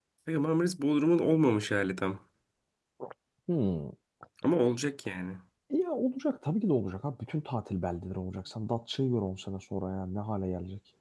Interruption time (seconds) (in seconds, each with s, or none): none